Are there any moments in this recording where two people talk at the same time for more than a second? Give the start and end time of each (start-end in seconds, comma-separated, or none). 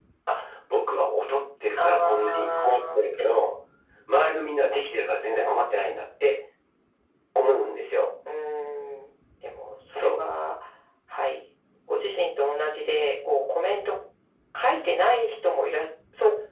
1.8-3.0